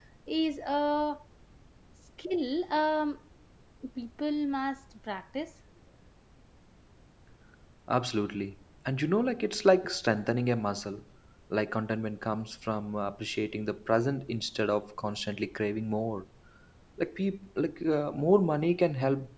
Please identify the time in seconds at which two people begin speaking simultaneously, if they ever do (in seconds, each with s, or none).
none